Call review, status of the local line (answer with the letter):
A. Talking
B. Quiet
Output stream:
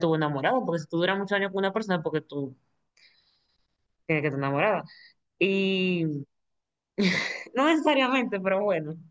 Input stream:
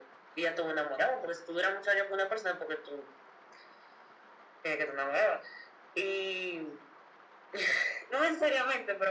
B